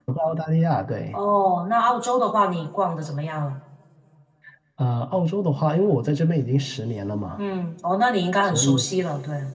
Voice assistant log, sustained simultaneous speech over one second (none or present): none